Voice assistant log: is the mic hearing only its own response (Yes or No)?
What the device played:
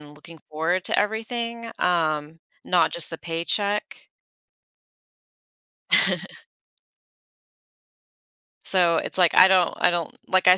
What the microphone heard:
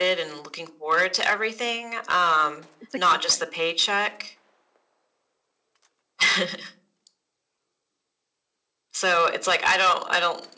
No